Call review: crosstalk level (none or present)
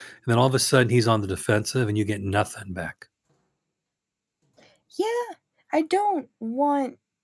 none